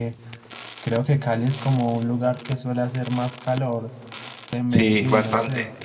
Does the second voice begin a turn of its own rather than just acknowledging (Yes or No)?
Yes